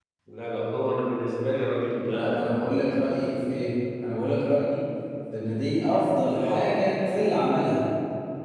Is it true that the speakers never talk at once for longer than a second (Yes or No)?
Yes